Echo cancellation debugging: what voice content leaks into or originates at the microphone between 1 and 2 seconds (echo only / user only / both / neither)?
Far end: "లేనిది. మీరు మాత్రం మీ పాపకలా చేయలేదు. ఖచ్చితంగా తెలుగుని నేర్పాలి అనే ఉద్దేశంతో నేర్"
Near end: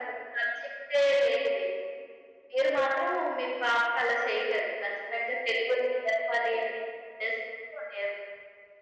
echo only